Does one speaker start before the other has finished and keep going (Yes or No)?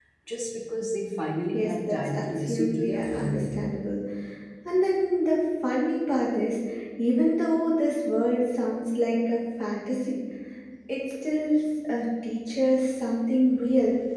Yes